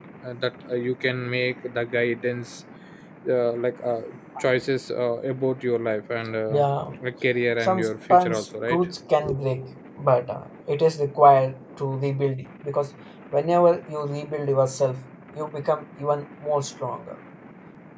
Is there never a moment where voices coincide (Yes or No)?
No